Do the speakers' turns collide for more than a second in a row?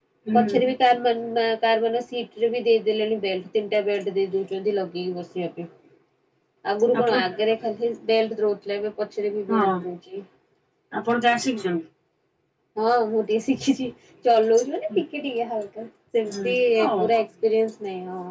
No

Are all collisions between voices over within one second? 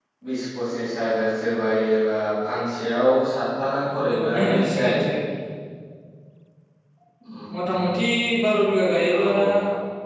No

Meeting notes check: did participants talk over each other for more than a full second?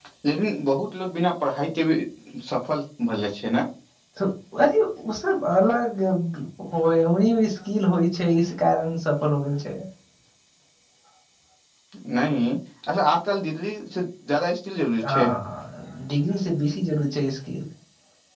No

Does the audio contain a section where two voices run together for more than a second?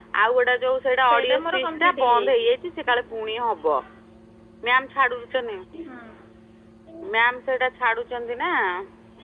Yes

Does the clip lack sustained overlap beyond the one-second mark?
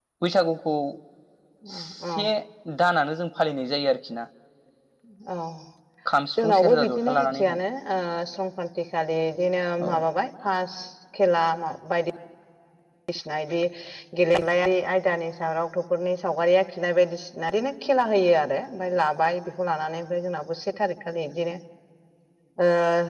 No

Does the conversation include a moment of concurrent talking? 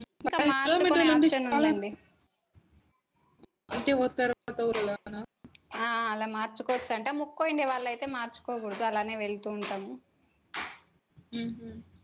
Yes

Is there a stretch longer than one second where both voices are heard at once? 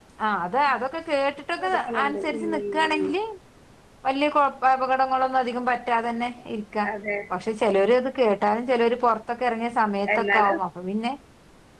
Yes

